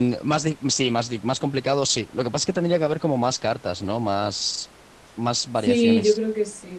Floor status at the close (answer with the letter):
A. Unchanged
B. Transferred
B